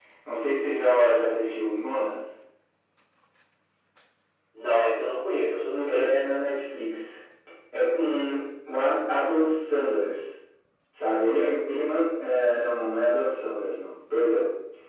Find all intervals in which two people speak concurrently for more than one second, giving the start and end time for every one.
none

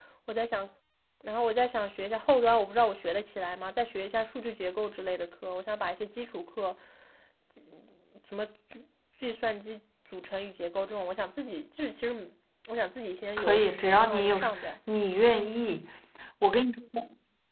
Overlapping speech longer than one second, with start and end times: 13.4-14.7

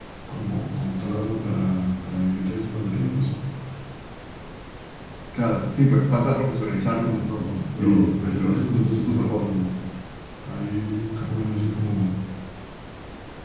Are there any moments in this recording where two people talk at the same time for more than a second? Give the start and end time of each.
7.8-9.4

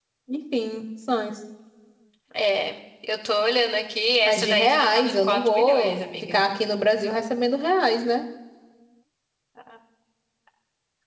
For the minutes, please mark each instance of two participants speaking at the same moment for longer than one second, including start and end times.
4.2-6.4

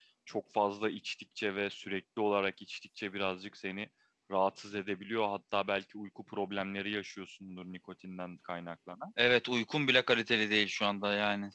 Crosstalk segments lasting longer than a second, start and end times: none

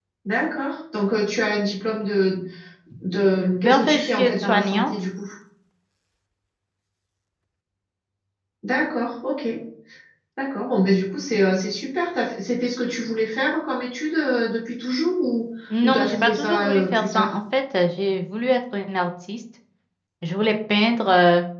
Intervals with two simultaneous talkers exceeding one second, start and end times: 3.6-4.9, 15.8-17.4

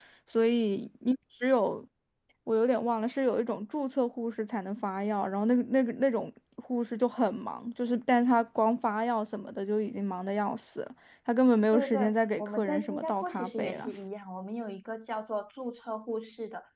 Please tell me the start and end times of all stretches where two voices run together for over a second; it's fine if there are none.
11.7-13.9

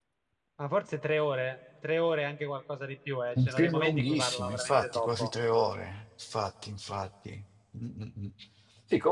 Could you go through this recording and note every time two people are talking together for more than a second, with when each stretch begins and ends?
3.4-5.3

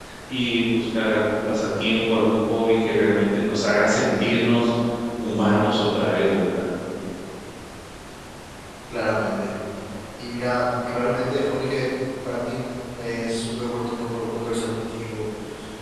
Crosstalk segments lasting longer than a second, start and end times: none

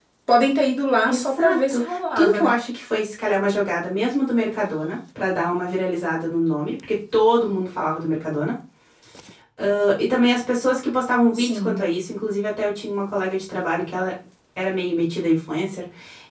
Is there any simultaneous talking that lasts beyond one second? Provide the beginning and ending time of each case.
1.1-2.6

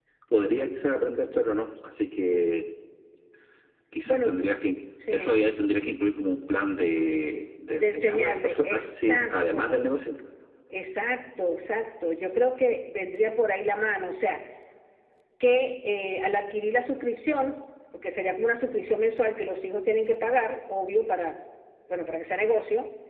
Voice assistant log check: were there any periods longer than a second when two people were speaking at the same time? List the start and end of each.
7.7-9.8

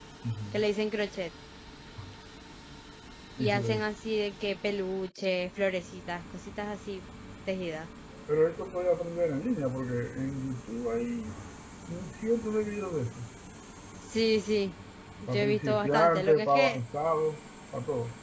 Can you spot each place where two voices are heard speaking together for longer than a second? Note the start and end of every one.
15.3-16.8

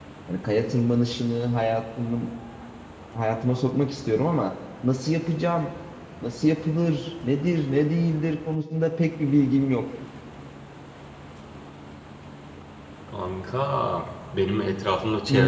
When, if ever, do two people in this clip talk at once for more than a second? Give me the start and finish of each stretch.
none

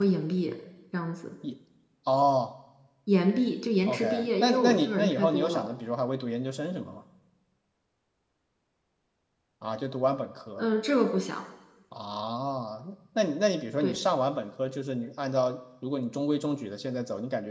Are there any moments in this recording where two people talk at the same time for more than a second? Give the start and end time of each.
3.9-5.7

